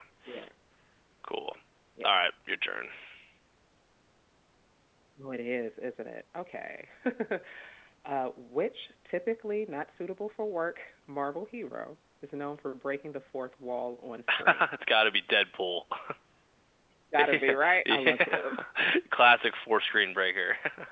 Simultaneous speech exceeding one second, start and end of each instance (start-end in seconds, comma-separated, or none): 17.2-18.4